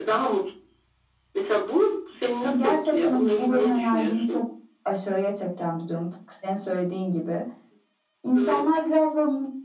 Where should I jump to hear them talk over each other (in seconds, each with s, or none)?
2.4 s